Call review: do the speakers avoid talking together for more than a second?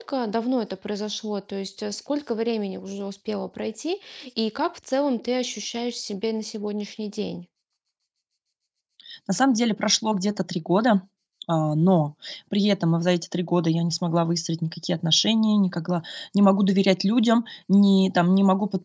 Yes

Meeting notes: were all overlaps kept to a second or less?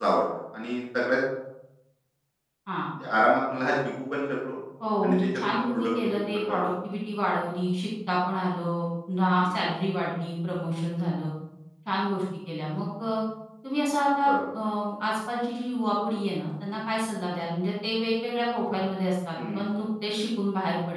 No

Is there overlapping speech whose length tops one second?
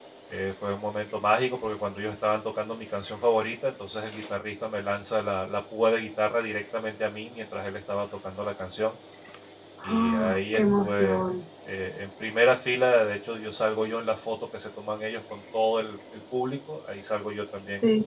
Yes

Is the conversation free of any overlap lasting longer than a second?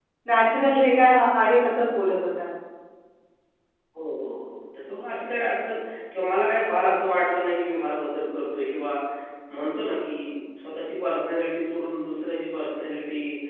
Yes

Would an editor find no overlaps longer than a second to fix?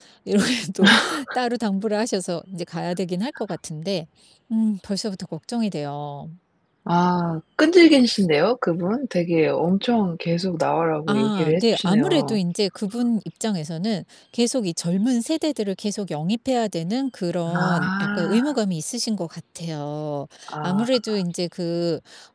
No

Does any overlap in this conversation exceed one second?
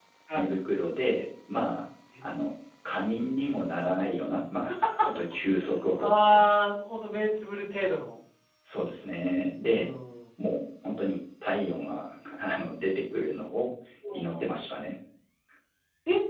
No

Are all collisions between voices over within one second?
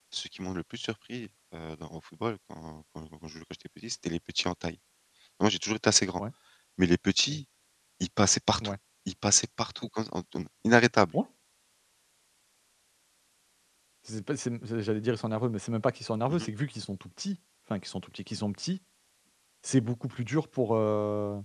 Yes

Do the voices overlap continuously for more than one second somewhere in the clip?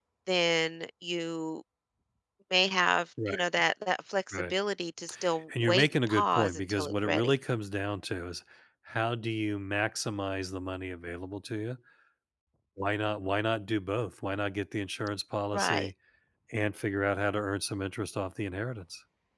Yes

